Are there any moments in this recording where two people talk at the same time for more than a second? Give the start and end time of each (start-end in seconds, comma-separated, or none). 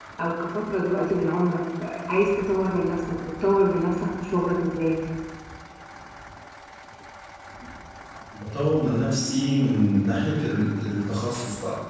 none